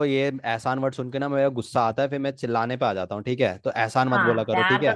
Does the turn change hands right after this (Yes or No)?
Yes